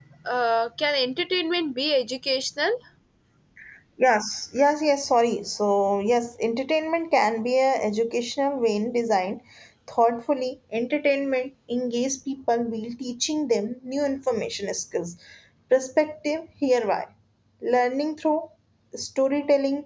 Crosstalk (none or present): none